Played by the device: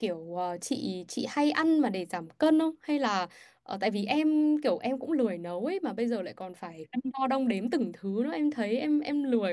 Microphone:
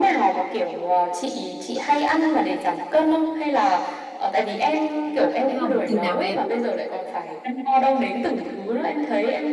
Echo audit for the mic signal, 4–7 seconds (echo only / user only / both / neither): both